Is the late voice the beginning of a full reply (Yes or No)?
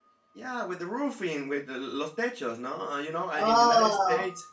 No